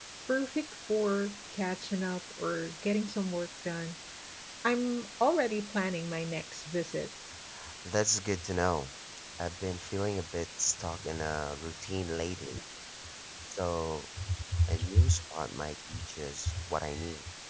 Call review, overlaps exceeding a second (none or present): none